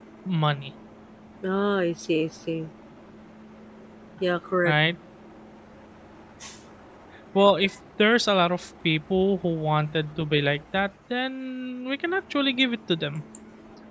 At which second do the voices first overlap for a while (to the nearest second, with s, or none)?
none